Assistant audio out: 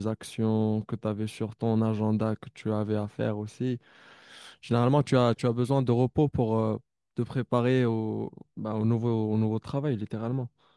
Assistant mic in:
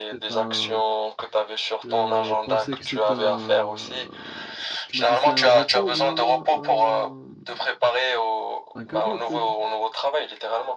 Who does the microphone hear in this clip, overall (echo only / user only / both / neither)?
both